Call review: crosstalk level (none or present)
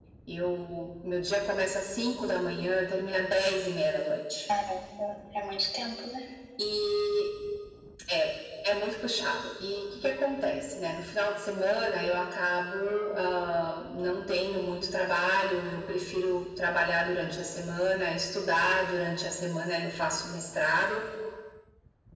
none